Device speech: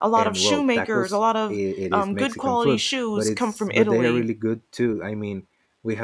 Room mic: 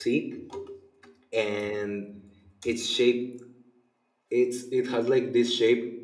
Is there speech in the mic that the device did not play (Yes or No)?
Yes